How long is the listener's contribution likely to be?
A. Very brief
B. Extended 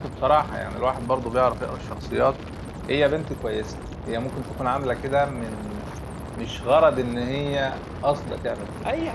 B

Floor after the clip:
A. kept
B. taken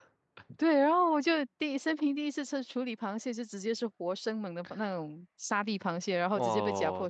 B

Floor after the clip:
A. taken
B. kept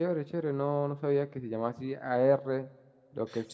A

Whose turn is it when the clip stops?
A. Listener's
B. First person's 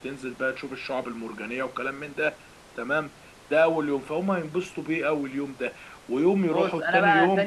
A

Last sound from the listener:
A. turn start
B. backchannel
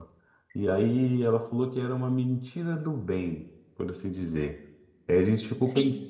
B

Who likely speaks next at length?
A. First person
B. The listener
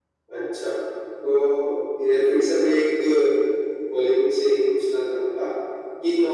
A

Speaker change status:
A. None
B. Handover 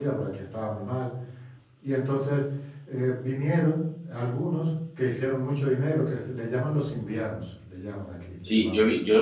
B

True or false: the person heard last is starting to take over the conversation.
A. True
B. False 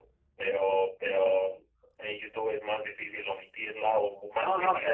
A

